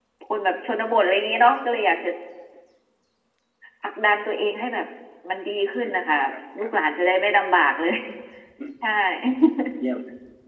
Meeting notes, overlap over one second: none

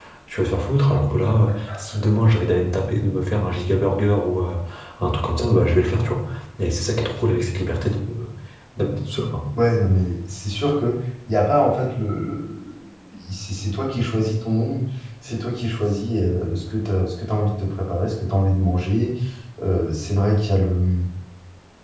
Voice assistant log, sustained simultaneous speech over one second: none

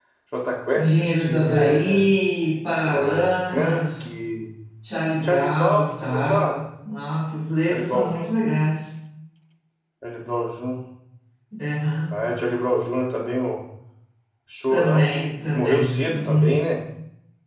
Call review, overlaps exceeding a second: present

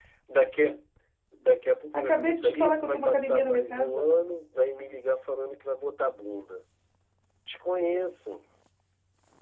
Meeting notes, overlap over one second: present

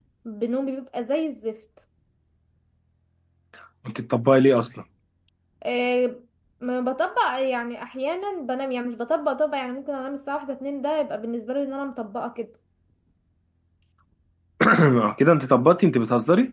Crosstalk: none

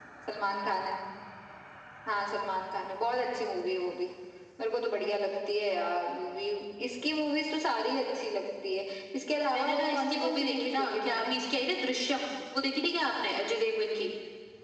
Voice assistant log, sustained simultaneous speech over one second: present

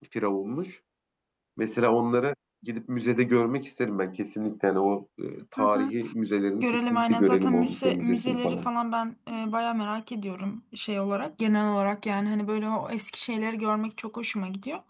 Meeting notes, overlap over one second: present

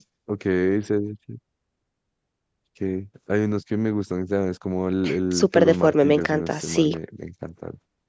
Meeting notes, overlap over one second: present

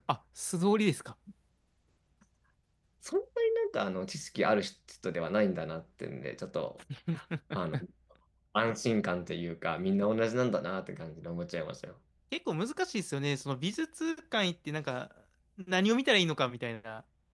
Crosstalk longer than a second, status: none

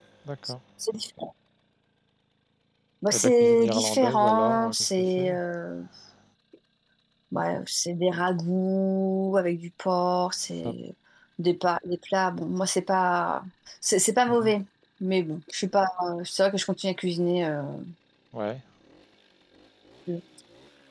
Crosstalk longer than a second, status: present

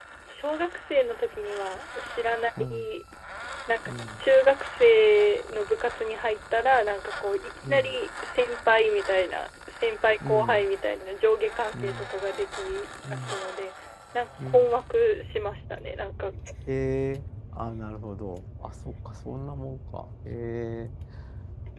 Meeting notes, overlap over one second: none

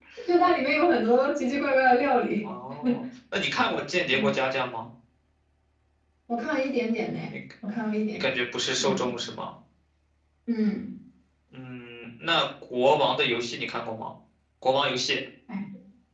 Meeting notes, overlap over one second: none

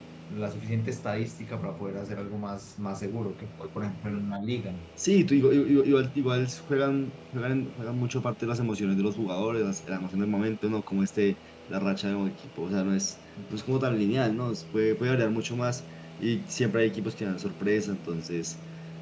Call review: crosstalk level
none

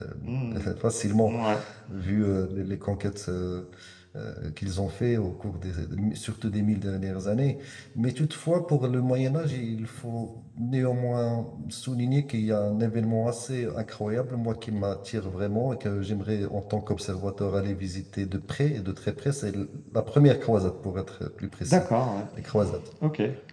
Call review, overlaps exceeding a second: none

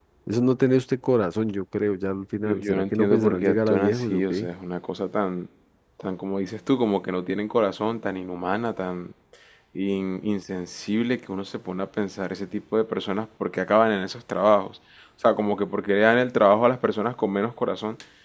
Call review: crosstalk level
present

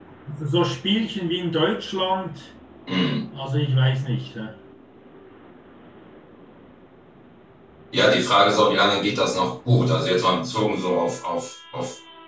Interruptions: none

